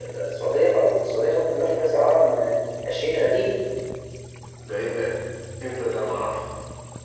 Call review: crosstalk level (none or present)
none